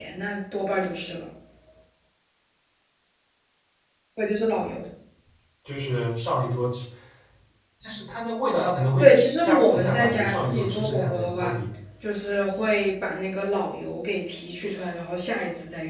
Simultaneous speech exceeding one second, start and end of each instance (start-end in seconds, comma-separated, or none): 9.0-11.6